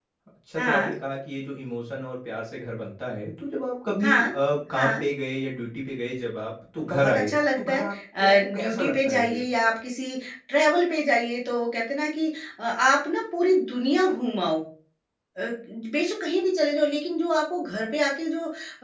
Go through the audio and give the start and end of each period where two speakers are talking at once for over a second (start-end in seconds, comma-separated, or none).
6.9-9.4